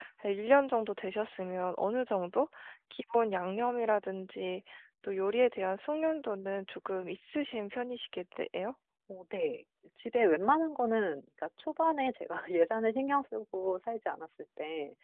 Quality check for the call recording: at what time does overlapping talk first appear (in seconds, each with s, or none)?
none